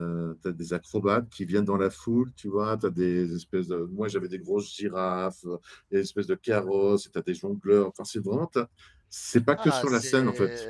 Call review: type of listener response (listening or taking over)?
taking over